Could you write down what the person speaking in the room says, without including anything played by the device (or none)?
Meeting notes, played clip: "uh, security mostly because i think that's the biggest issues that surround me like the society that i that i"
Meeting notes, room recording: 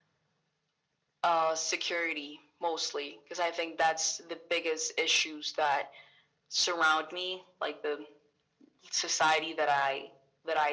none